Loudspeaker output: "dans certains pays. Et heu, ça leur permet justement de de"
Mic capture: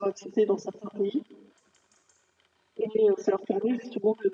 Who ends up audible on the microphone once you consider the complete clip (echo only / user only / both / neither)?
echo only